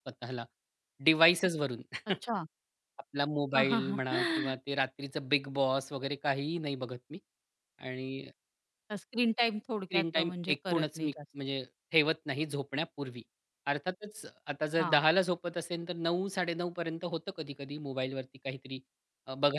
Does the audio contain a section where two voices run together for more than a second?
Yes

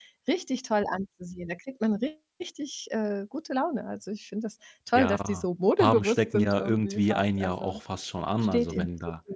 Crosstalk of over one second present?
Yes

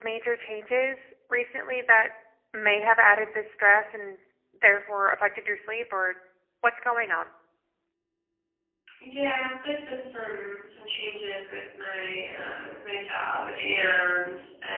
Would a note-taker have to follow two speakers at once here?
No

